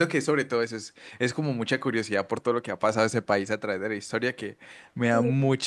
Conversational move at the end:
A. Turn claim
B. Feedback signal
B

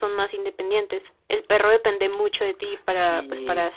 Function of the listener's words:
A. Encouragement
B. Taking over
A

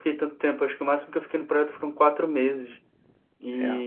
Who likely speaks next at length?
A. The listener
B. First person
B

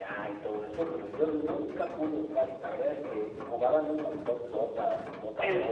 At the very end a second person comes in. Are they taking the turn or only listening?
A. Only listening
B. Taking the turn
B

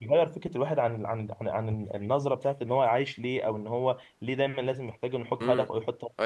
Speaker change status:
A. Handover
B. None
A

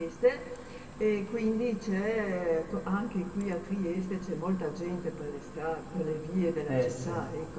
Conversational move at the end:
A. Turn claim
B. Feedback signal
B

